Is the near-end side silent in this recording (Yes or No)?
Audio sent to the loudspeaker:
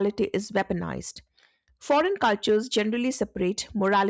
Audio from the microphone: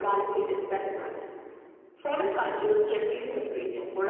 No